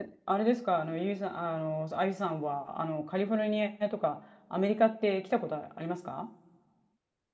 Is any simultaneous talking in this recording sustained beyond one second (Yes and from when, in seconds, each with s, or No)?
No